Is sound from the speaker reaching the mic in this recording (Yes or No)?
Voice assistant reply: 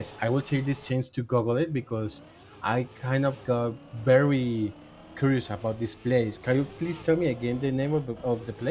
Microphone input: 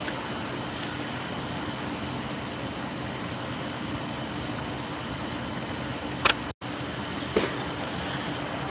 No